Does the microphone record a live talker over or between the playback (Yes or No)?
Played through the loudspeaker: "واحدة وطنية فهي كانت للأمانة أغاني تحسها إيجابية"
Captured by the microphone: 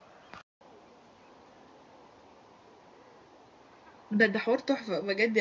Yes